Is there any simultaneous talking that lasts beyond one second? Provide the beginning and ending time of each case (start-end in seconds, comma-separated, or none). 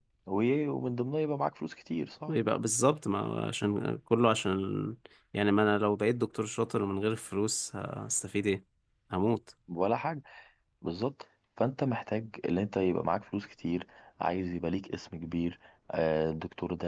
none